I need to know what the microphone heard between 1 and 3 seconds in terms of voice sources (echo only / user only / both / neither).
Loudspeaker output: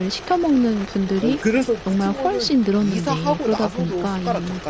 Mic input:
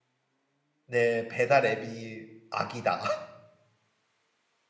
user only